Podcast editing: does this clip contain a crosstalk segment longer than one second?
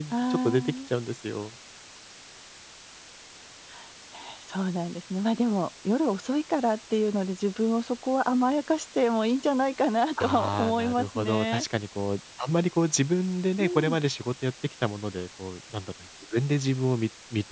Yes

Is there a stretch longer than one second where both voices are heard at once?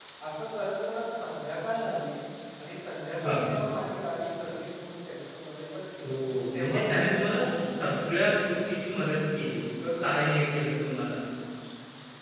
Yes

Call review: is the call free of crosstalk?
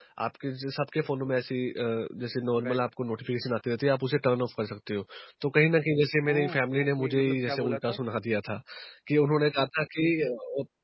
No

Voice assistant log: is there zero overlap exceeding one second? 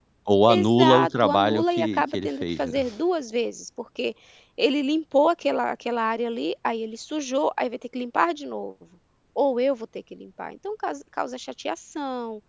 No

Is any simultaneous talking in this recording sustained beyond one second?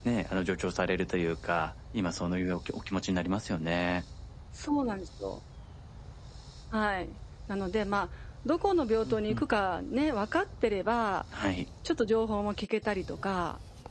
No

